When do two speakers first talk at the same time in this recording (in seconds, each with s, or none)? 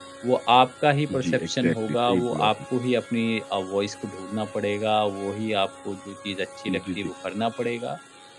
1.2 s